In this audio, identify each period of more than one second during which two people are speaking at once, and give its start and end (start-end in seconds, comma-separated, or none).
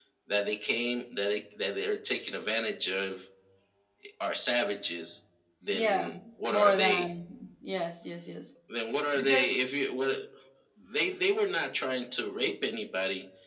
5.7-7.1